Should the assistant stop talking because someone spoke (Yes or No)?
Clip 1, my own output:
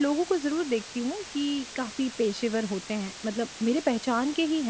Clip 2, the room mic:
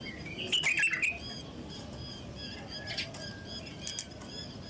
No